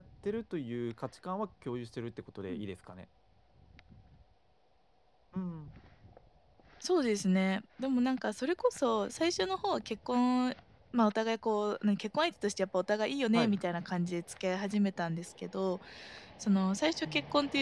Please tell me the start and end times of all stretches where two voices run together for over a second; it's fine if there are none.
none

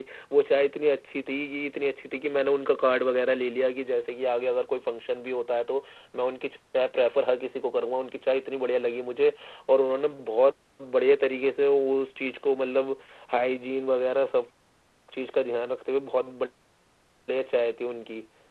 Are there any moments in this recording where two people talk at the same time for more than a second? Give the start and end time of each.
none

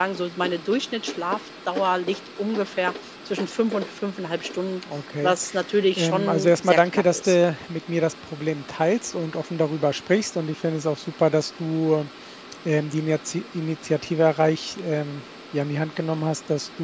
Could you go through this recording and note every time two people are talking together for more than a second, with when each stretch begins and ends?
6.0-7.4

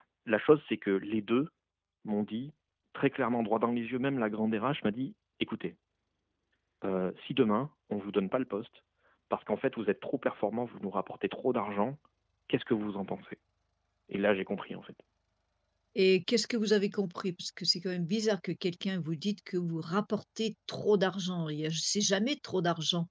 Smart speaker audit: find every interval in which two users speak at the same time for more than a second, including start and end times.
none

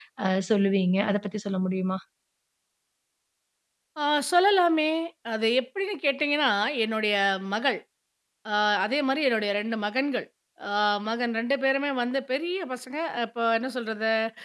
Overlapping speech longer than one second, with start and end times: none

